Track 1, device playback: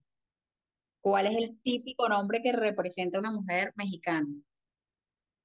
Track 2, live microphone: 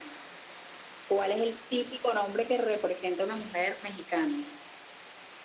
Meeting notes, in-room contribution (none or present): none